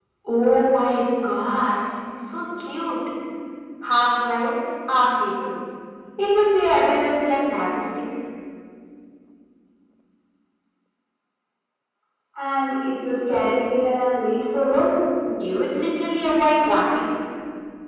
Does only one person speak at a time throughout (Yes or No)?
Yes